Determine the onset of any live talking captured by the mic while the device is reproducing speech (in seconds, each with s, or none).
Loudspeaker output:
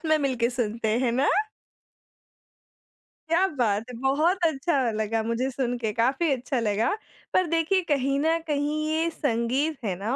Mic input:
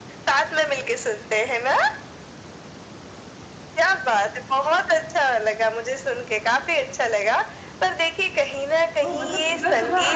9.0 s